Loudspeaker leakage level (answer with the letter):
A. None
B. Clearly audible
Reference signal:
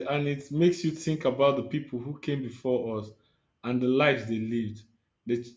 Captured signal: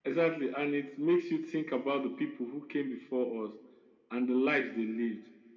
B